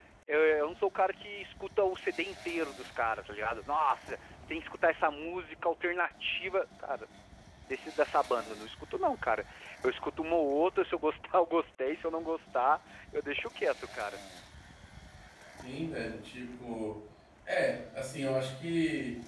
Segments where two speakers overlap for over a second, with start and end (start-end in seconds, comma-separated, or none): none